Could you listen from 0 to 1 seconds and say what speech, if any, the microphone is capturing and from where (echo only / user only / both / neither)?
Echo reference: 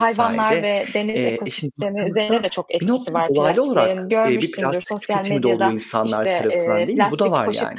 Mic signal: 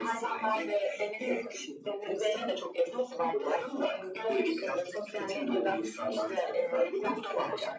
echo only